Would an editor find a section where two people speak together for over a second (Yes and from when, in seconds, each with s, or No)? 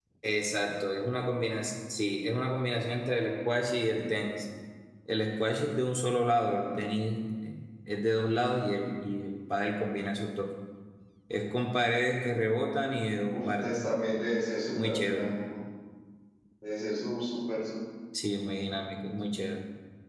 No